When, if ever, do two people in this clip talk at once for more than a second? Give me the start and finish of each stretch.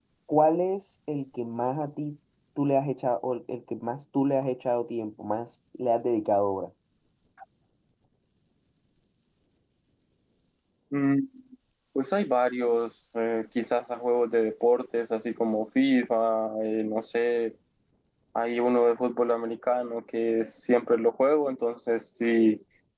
none

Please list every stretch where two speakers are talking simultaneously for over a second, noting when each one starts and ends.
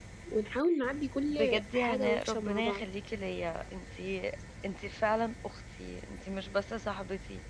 1.3-2.8

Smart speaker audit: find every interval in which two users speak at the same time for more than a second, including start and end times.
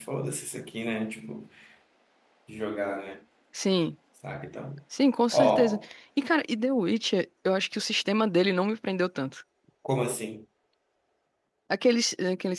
none

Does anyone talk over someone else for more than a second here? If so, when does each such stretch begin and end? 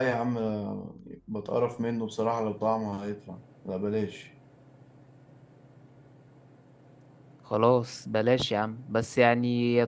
none

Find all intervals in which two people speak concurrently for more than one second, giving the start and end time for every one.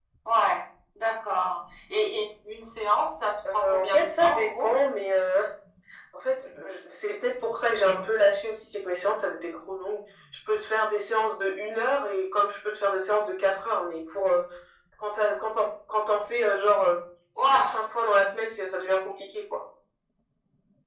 3.5-4.8

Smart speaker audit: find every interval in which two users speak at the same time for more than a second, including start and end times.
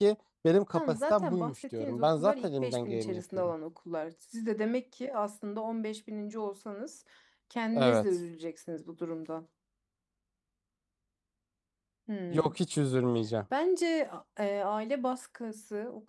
0.7-3.5

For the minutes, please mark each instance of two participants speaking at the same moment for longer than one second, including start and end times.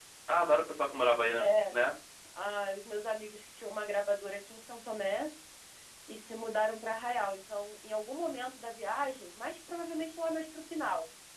none

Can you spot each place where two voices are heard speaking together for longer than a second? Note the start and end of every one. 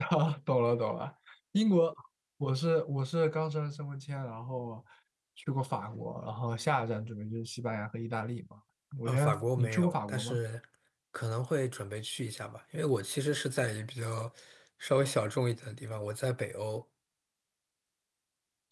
9.1-10.4

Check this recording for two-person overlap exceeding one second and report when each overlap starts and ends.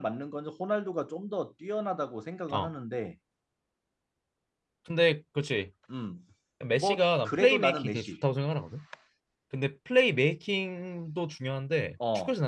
6.7-8.1

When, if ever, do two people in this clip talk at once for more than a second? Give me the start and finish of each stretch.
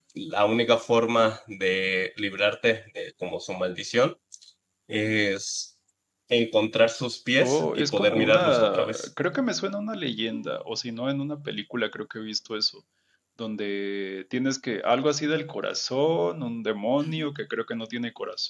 7.4-9.1

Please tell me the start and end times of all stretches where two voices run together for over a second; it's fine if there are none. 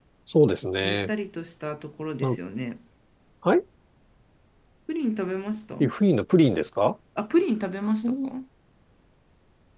none

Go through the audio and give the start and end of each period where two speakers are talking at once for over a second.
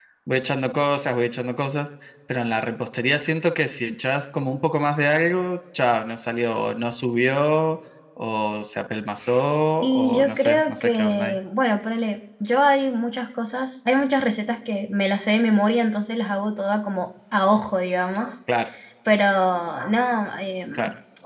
9.8-11.4

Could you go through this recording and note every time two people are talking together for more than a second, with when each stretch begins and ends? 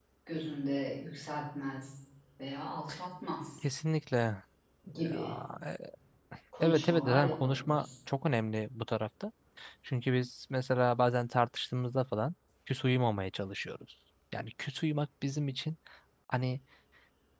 6.6-7.8

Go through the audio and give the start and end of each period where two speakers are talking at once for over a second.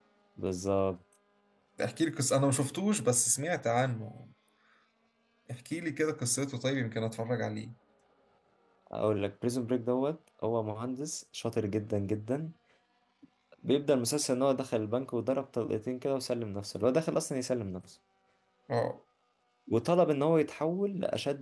none

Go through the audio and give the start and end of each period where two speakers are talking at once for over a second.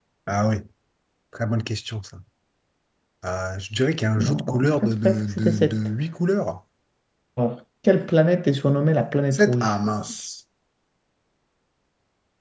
4.2-5.8

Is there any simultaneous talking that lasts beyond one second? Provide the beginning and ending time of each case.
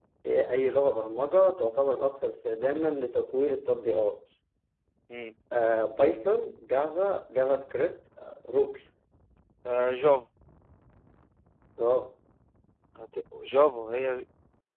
none

